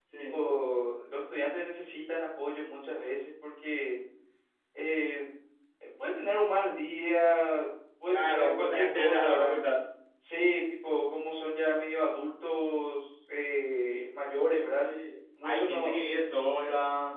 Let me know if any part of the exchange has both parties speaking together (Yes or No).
Yes